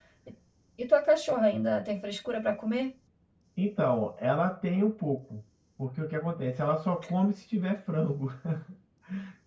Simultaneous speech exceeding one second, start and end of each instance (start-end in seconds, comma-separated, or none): none